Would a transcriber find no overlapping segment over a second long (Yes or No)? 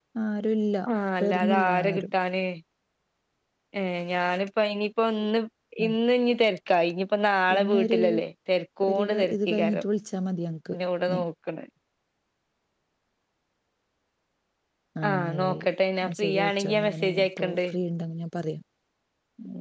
No